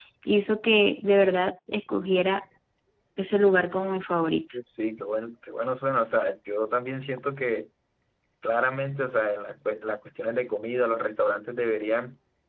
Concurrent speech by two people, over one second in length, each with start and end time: none

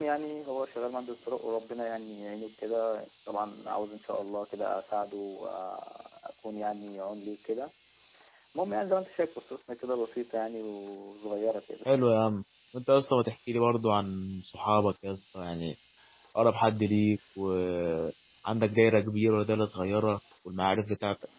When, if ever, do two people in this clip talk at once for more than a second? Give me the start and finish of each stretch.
none

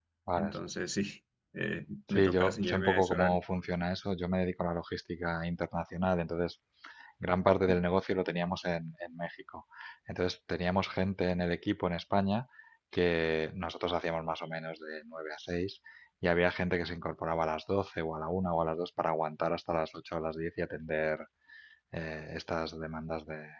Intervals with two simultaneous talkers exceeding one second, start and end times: 2.1-3.4

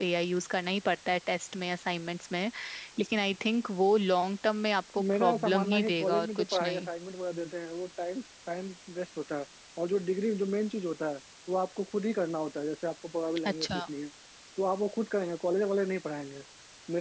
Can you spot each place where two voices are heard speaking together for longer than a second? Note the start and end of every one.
5.1-6.9

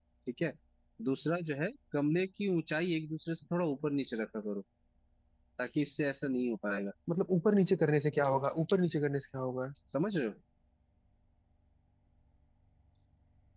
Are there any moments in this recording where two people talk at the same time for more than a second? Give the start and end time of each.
none

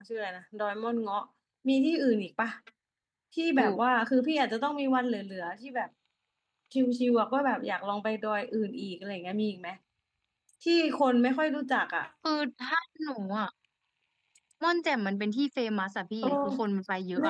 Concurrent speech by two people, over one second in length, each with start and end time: none

